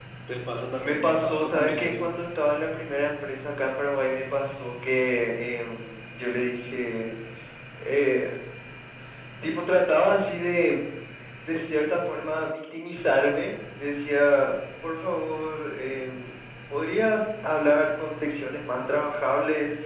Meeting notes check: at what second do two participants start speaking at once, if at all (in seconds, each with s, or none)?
0.8 s